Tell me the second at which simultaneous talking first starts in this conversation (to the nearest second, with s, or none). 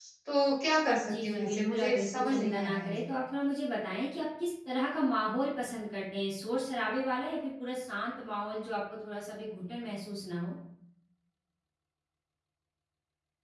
1 s